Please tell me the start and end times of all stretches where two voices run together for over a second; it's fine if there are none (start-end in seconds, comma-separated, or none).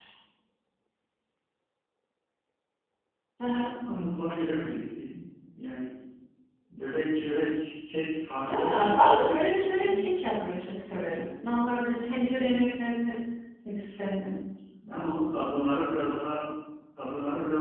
8.5-10.1